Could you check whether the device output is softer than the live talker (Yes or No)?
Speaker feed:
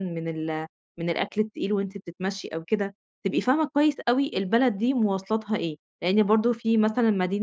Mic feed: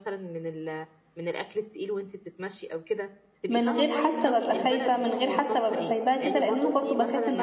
Yes